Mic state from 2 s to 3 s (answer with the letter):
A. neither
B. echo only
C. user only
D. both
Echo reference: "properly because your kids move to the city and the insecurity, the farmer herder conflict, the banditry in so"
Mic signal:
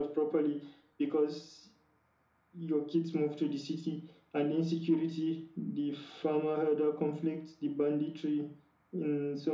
B